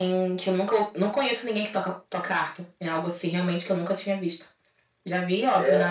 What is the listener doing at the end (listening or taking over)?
listening